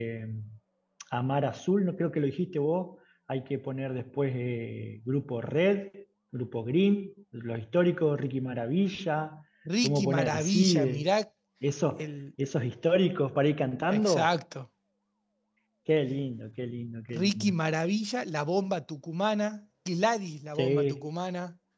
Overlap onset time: 9.8 s

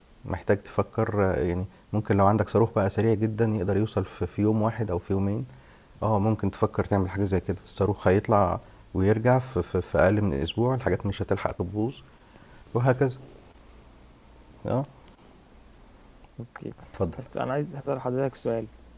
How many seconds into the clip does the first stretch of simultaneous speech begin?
none

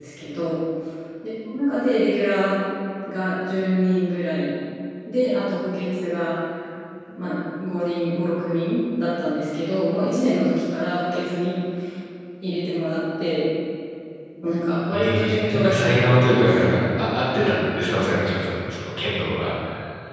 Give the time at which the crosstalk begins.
14.9 s

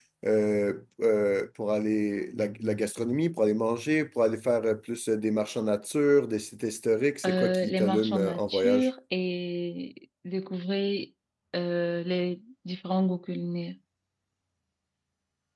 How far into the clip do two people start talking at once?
7.2 s

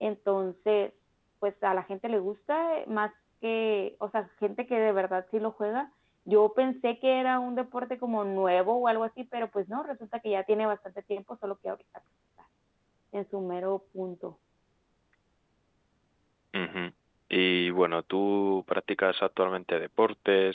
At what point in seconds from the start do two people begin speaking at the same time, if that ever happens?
none

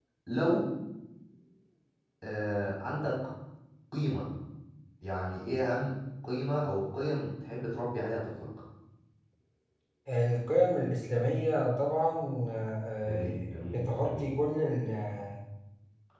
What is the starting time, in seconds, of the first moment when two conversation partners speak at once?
13.0 s

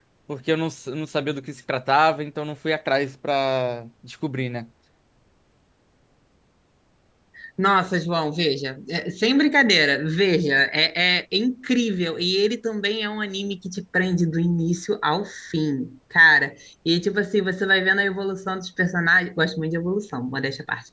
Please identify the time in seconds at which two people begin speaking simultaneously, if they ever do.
none

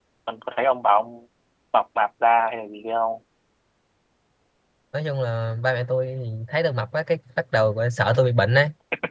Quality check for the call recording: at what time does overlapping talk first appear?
none

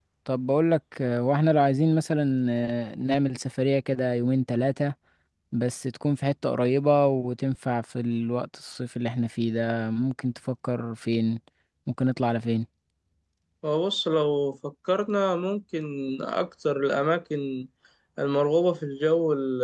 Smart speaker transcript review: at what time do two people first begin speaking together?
none

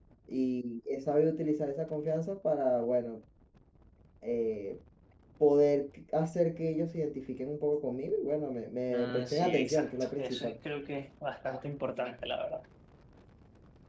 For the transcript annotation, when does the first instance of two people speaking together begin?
8.9 s

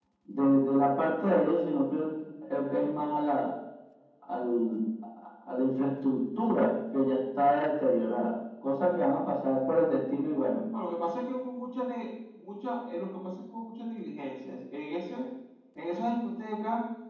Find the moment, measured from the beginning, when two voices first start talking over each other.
none

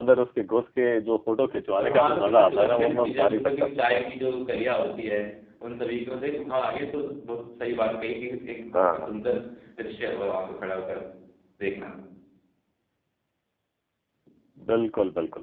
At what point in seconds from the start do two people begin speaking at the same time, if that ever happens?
1.8 s

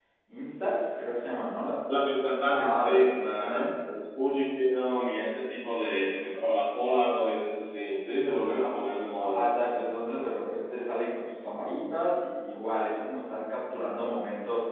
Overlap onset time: 2.5 s

